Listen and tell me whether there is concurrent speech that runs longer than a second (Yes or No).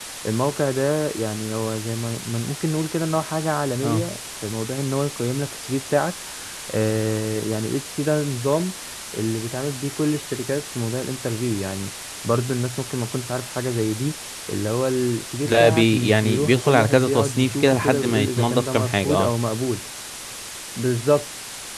Yes